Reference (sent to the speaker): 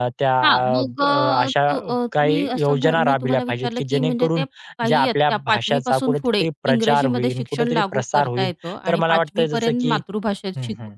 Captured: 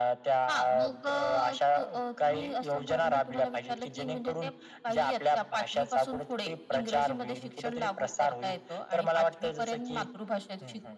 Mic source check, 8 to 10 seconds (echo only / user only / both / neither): echo only